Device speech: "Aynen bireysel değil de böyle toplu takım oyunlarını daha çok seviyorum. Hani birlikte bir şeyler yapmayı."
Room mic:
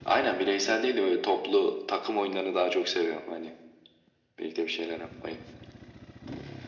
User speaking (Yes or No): No